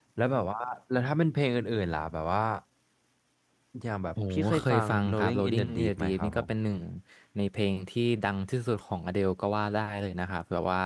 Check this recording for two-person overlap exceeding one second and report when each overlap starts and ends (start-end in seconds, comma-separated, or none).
4.3-6.4